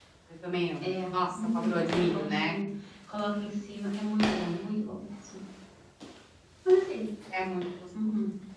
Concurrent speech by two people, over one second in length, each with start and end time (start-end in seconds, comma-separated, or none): 0.8-2.5